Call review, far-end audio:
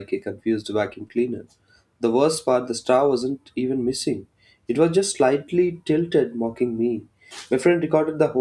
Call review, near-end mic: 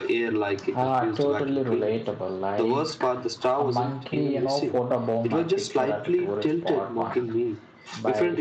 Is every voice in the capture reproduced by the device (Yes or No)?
No